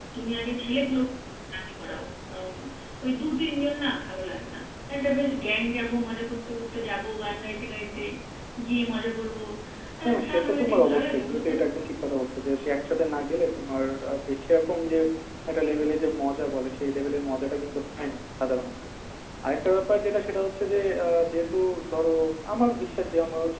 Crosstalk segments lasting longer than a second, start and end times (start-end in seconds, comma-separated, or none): 10.1-11.5